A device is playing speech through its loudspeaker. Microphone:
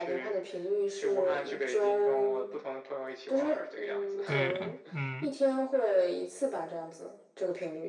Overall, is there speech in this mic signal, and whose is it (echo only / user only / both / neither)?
both